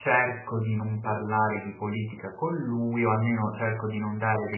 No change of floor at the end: Yes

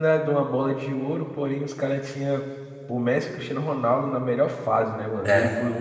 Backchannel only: Yes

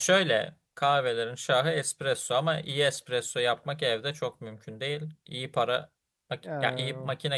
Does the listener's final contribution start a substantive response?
No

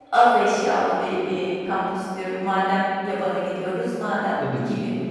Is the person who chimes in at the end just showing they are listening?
Yes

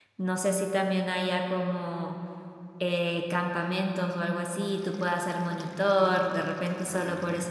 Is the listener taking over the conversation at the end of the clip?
No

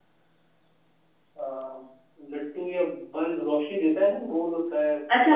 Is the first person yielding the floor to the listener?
Yes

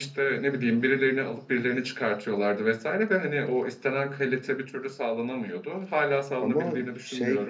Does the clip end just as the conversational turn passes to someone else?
Yes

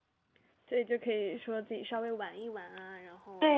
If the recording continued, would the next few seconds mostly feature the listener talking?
Yes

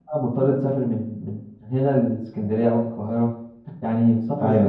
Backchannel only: No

